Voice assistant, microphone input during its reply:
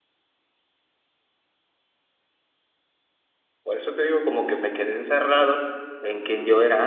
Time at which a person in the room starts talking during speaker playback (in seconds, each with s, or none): 3.6 s